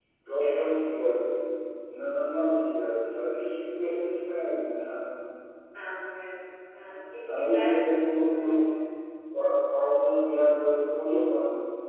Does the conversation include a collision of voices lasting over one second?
Yes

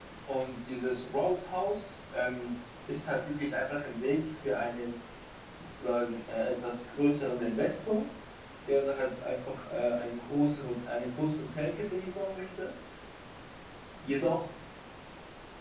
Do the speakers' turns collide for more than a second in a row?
No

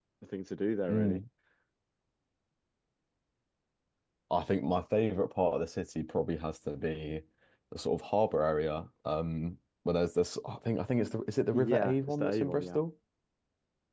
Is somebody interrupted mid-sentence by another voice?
Yes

